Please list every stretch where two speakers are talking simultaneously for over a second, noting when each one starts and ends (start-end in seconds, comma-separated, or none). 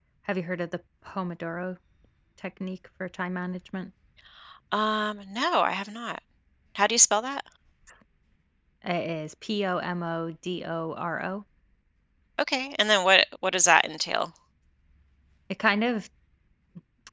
none